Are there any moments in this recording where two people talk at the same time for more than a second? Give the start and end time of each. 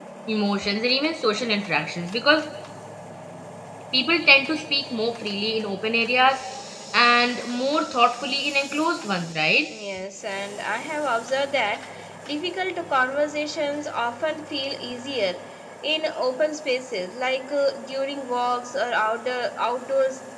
none

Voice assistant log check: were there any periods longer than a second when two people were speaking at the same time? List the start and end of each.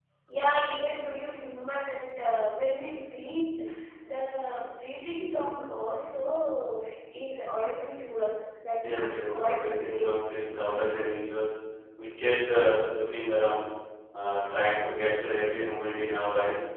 8.9-10.4

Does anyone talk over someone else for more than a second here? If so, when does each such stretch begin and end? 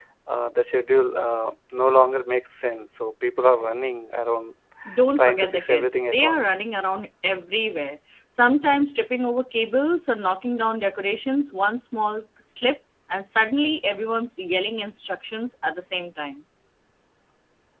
5.2-6.6

